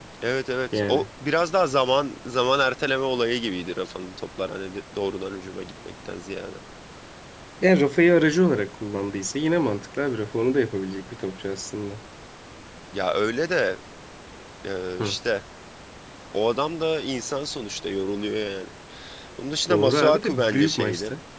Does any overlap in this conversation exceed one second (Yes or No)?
Yes